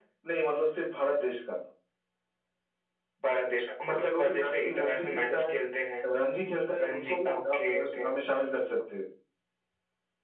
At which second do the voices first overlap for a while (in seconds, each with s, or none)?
4.0 s